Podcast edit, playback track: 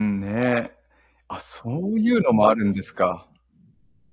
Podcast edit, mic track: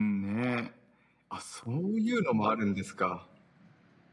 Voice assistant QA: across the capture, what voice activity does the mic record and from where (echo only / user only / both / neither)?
echo only